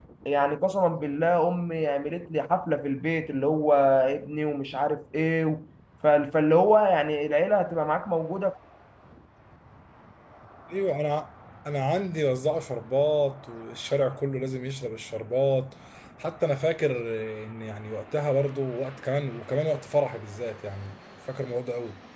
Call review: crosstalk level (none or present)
none